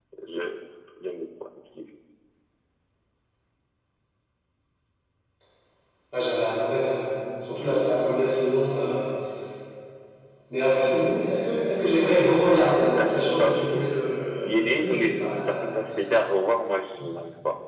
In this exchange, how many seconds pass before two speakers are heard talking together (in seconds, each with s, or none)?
12.5 s